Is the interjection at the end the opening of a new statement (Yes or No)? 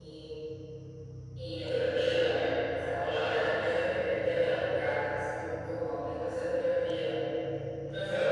Yes